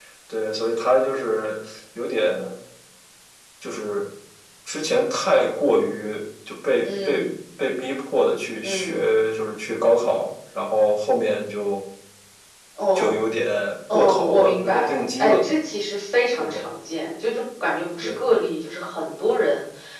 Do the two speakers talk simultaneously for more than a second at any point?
Yes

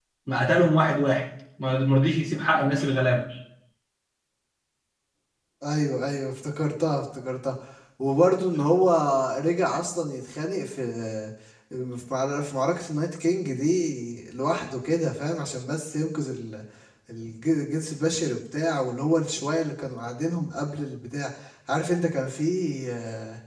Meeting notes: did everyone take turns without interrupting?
Yes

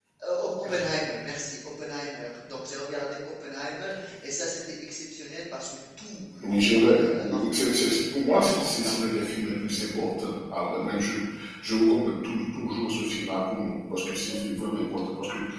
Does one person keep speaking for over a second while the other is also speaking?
Yes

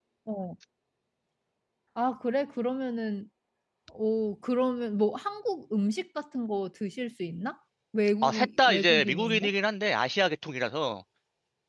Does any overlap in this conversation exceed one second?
Yes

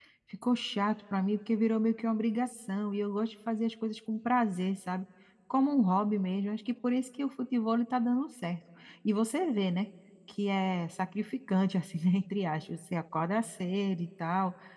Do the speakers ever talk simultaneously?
No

